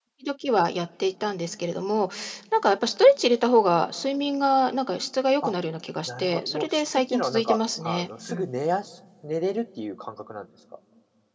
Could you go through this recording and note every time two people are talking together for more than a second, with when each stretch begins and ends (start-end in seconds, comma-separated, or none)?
6.1-8.5